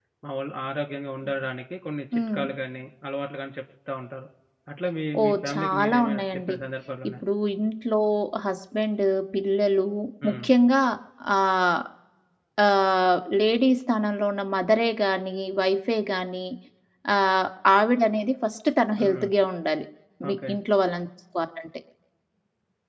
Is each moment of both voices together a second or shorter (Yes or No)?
No